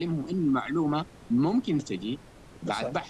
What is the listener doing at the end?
listening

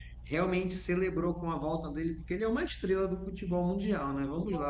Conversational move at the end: listening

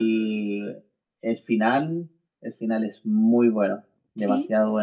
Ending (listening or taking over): taking over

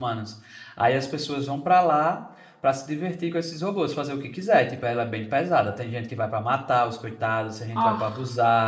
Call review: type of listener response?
listening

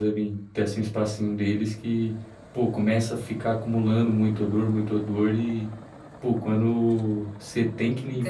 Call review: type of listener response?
taking over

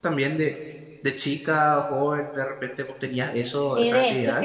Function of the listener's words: taking over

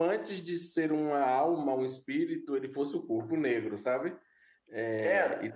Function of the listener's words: taking over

